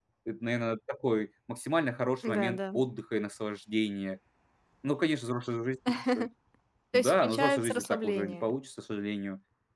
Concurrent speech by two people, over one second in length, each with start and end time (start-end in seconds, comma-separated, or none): 6.9-8.4